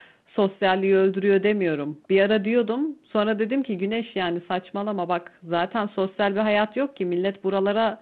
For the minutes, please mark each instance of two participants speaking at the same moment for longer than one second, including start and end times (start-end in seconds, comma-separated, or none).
none